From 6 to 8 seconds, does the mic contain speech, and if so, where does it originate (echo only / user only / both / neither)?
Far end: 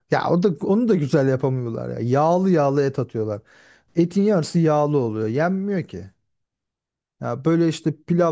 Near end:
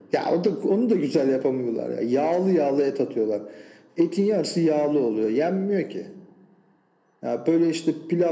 echo only